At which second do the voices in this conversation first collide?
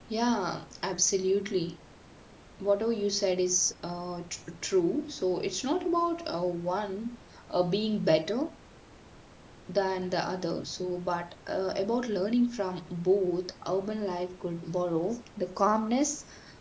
none

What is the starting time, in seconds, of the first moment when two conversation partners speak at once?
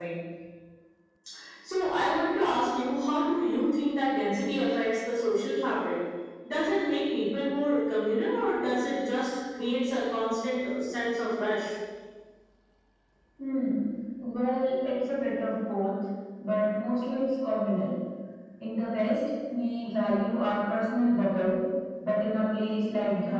none

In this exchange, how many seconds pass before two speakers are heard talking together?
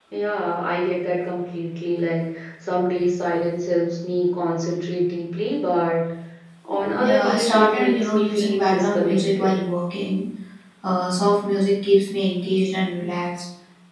7.0 s

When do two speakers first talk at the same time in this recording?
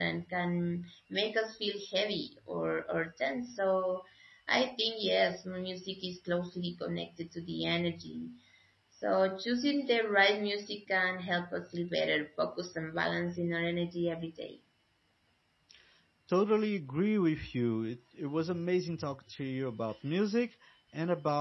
none

